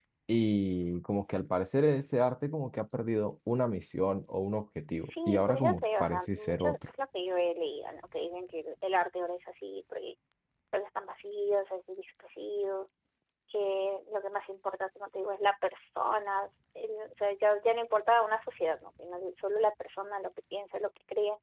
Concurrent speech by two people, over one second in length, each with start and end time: 5.3-6.8

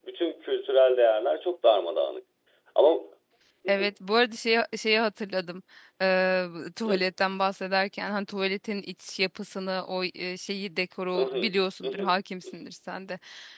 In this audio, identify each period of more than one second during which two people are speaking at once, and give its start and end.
none

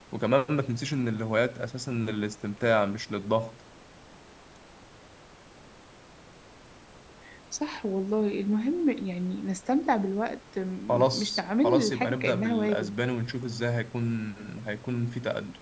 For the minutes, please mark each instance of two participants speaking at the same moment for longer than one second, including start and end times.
10.9-12.9

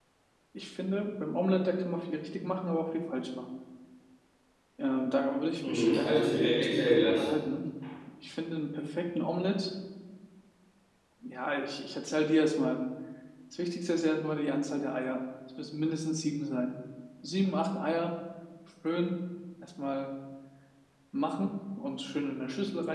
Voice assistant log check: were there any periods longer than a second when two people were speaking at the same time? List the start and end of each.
5.6-7.3

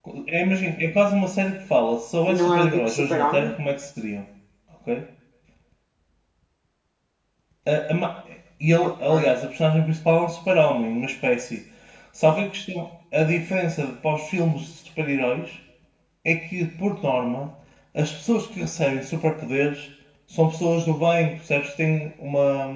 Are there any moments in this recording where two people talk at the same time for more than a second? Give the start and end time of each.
2.3-3.5

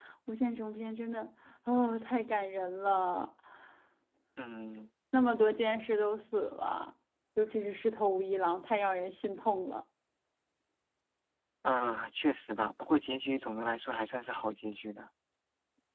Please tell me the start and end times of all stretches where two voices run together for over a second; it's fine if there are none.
none

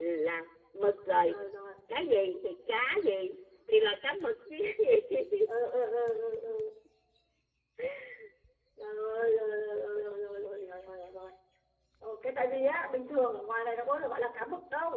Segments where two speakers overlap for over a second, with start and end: none

